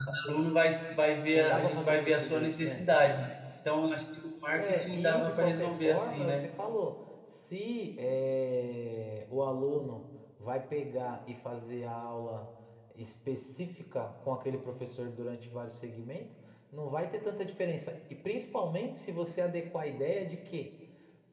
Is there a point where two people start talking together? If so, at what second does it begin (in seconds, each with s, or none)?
1.3 s